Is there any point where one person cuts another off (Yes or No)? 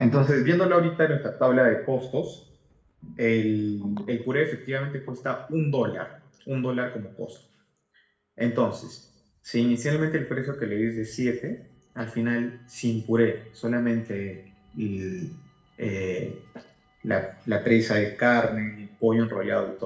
No